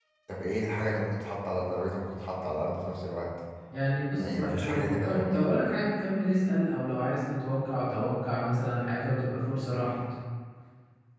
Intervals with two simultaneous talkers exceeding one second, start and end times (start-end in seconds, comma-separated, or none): 4.2-5.5